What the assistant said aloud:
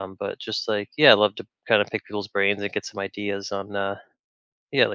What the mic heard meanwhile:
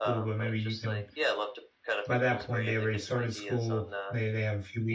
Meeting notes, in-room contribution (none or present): present